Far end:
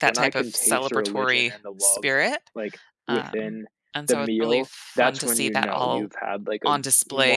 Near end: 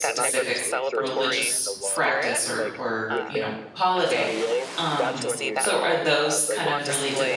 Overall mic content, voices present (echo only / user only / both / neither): both